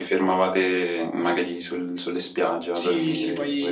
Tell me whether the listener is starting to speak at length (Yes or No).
Yes